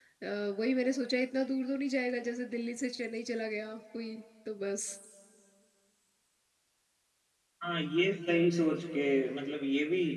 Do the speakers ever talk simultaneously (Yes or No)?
No